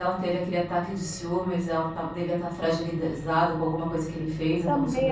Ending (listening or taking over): taking over